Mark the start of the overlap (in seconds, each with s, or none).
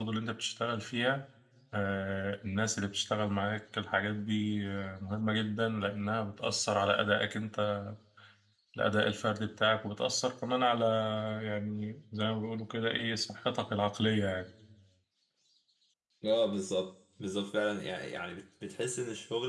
none